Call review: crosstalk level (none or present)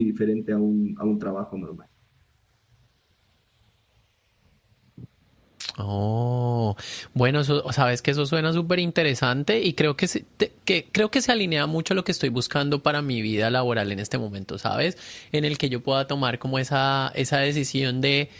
none